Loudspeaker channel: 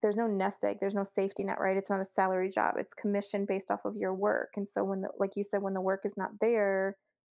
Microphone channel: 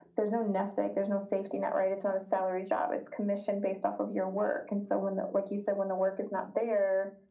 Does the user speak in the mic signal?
No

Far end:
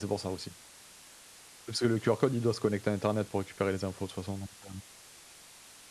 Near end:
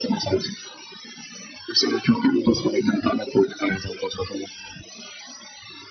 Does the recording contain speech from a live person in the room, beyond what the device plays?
No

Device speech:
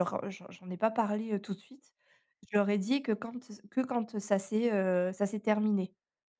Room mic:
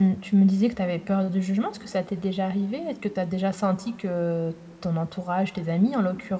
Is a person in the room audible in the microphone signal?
Yes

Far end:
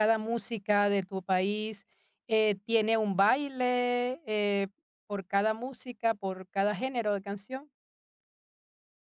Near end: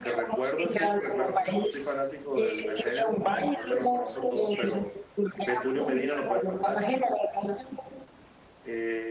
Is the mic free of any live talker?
No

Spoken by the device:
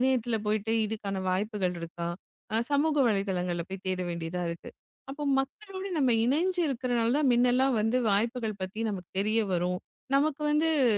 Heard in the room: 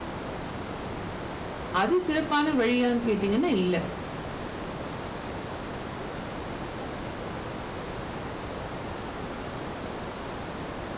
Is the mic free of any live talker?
No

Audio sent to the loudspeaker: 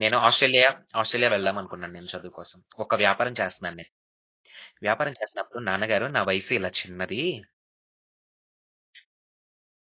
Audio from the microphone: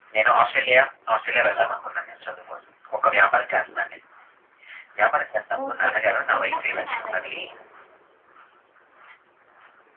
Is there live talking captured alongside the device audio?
Yes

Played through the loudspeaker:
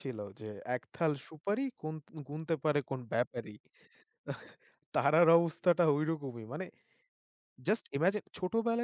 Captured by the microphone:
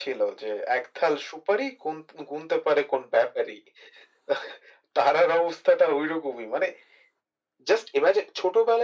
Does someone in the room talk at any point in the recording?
No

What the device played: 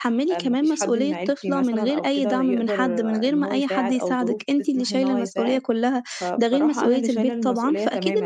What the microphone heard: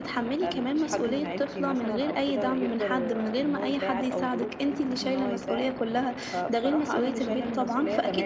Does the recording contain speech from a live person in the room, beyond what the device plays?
No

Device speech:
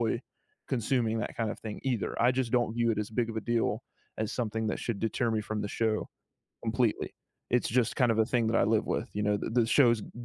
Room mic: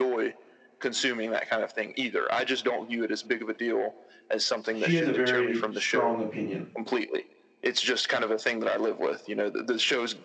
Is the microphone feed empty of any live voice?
No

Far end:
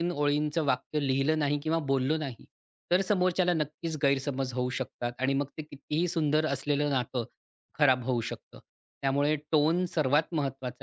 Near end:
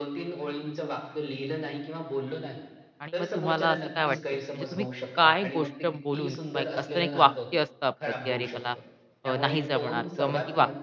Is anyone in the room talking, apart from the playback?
Yes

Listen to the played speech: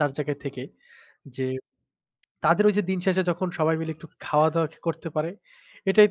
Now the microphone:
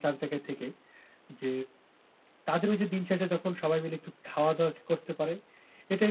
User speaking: No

